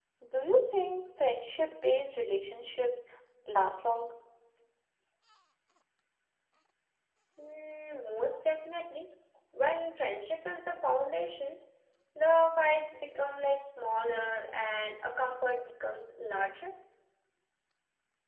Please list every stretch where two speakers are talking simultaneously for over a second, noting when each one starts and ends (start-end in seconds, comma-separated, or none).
none